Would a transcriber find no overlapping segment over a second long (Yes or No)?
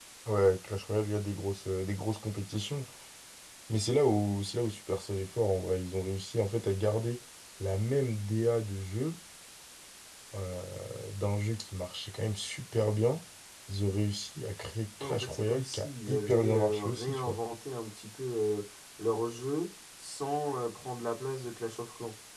No